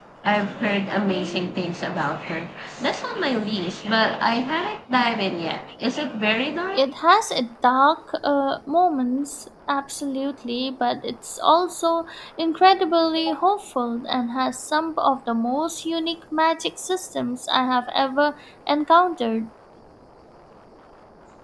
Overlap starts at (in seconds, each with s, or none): none